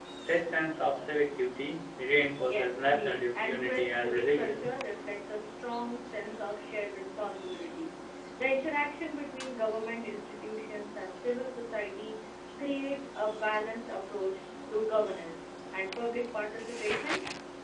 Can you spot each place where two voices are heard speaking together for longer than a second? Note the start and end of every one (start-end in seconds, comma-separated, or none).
2.5-4.7